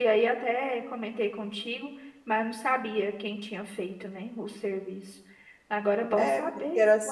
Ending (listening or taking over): taking over